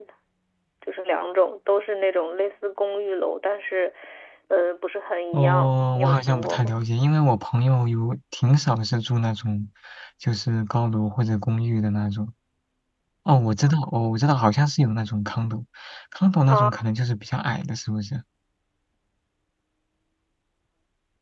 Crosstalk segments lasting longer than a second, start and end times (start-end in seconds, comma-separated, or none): 5.3-6.7